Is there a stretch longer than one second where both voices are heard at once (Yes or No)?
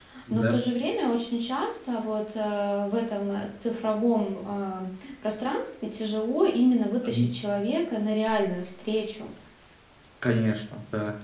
No